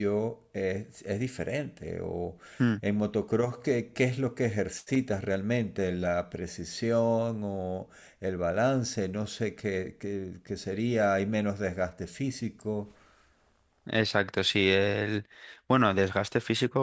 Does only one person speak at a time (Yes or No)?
Yes